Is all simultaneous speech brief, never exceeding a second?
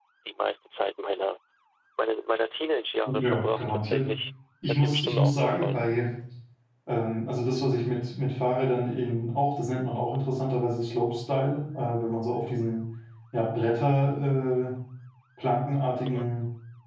No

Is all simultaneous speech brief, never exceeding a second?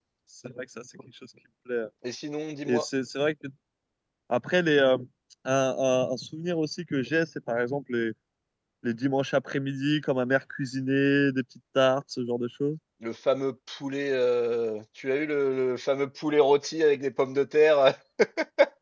Yes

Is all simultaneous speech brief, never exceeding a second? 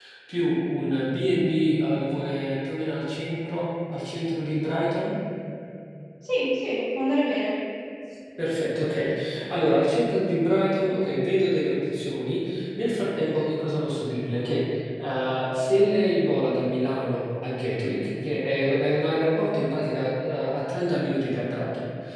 Yes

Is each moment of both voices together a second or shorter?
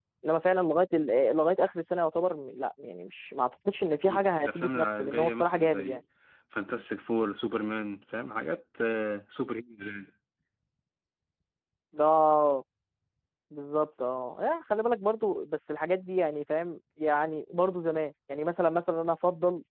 No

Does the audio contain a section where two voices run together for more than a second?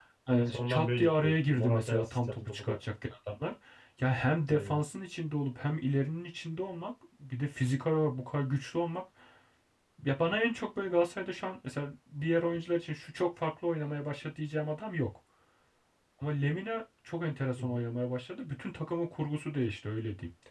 Yes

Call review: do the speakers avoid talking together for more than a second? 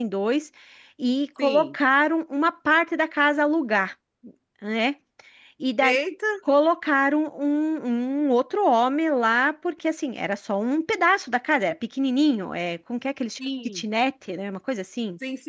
Yes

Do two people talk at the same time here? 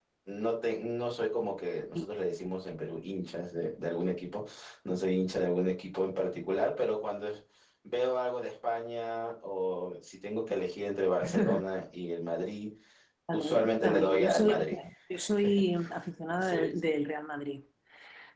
Yes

